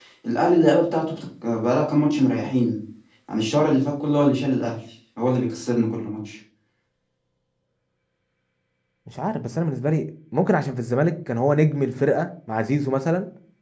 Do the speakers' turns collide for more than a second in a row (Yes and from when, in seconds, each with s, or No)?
No